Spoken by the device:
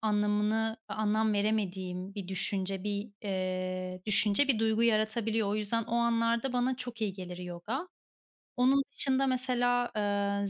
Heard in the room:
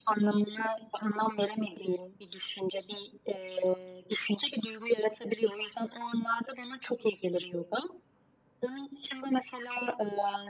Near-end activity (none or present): none